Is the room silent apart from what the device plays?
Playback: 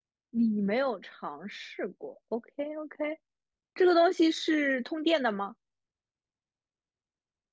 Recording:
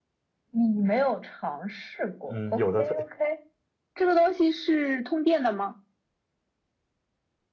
No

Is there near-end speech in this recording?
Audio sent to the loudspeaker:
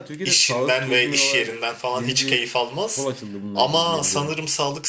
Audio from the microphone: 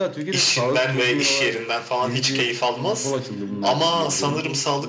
Yes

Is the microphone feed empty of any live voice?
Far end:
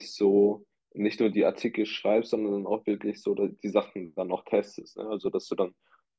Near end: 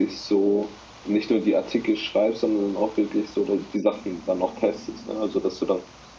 Yes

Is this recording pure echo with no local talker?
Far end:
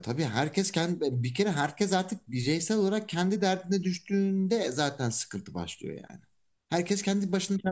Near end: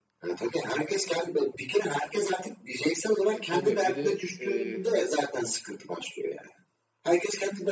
No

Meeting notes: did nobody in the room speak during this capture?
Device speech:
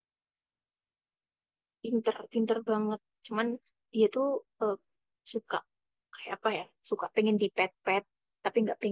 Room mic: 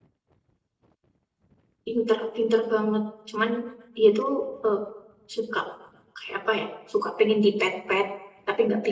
Yes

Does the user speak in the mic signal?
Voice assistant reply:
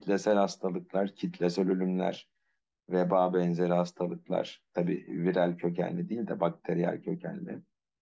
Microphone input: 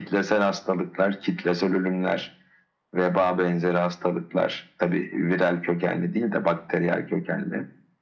No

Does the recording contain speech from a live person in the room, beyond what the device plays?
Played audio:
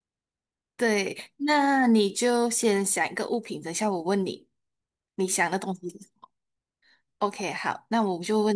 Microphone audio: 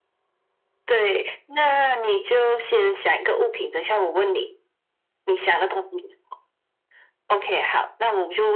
No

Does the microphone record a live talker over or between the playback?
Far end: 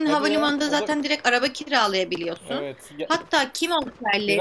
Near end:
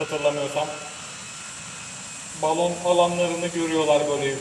Yes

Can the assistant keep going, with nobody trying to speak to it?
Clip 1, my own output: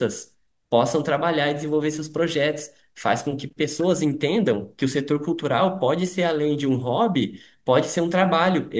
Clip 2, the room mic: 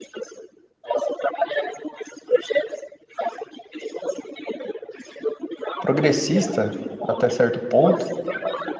No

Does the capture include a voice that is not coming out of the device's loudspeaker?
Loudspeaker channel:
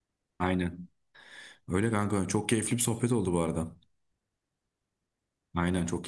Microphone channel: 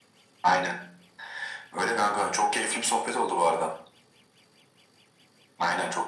No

